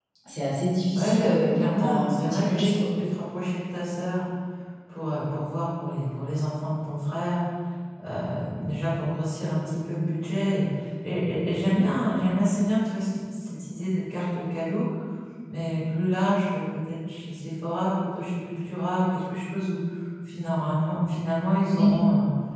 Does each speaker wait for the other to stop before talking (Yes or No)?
No